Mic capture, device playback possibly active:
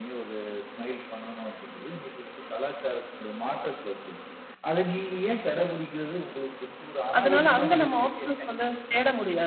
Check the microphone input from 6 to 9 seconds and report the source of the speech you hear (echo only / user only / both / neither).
both